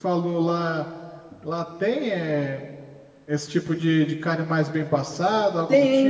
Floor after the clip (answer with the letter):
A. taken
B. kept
A